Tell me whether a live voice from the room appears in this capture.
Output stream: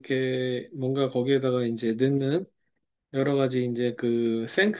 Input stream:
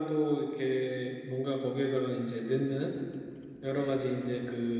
No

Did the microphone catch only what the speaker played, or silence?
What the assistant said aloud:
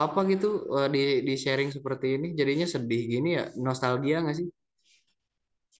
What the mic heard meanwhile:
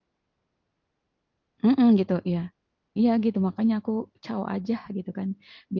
No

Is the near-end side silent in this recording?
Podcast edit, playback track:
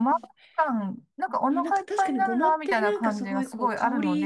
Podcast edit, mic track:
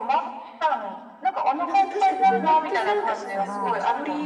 No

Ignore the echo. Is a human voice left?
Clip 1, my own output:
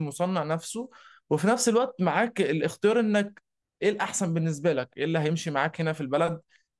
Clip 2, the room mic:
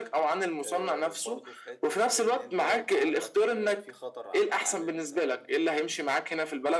Yes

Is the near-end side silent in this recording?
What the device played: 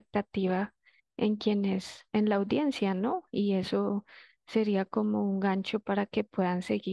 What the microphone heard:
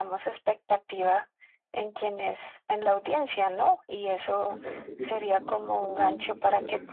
No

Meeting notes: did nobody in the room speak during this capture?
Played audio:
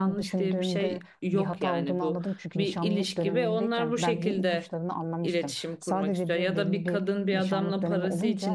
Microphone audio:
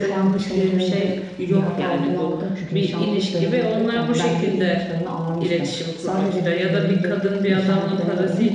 Yes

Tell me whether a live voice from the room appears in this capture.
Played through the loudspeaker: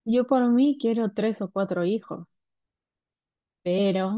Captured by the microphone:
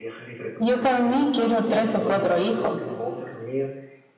Yes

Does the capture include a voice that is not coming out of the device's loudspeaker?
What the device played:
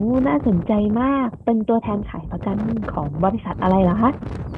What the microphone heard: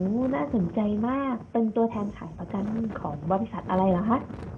No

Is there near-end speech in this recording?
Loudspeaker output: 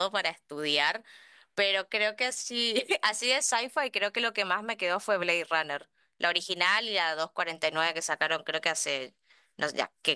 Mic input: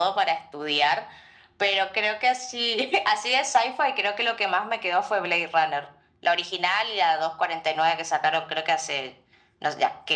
No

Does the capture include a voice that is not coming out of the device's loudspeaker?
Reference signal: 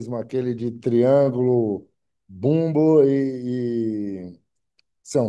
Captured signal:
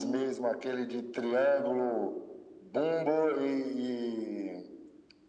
No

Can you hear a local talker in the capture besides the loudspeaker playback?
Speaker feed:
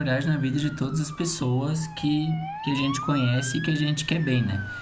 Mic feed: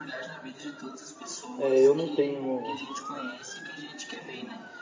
Yes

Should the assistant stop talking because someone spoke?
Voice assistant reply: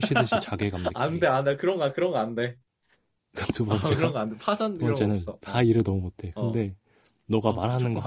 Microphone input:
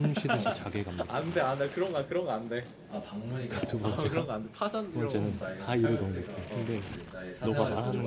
Yes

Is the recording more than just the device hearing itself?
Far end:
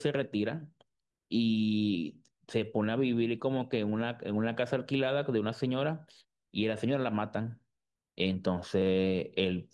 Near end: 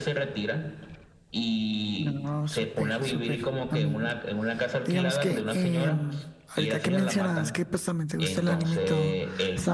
Yes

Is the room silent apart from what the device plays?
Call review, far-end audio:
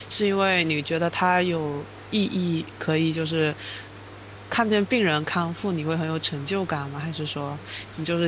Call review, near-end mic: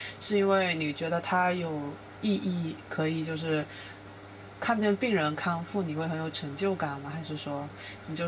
Yes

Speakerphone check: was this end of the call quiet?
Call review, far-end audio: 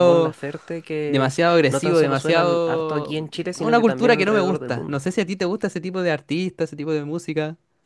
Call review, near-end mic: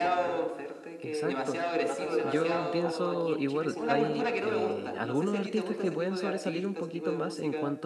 No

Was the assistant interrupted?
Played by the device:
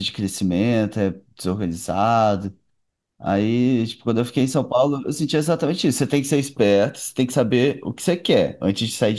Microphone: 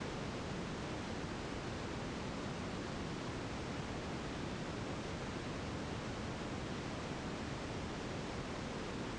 No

